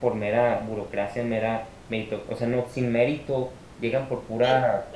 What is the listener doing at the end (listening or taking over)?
listening